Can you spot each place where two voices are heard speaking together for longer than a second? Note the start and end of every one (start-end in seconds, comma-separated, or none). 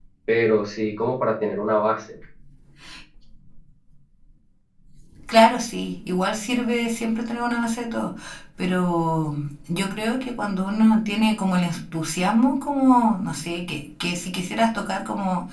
none